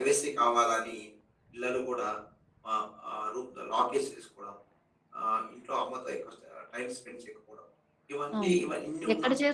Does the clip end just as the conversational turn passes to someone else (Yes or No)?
Yes